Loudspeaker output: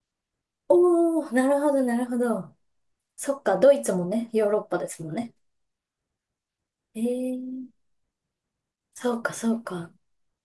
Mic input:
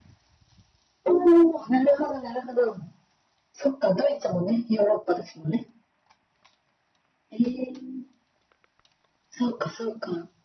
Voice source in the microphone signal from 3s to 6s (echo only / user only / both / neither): echo only